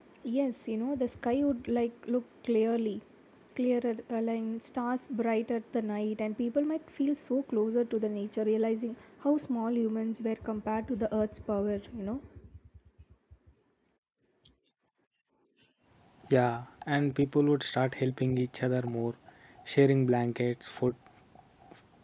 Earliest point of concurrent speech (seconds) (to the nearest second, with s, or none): none